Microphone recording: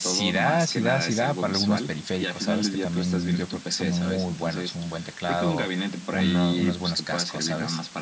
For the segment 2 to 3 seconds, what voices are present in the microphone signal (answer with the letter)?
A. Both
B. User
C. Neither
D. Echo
A